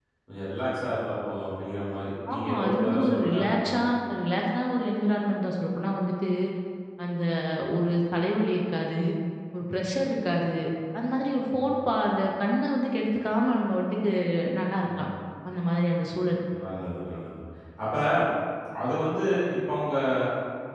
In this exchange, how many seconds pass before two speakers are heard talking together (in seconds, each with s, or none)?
2.3 s